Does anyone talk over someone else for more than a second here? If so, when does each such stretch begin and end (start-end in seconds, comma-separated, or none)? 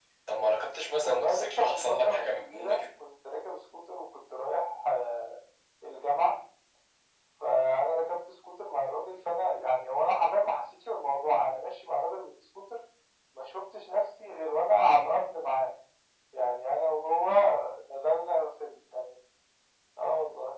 1.0-2.9